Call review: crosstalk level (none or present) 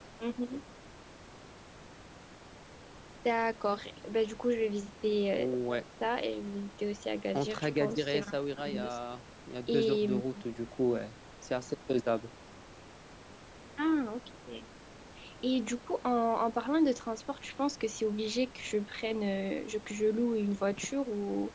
present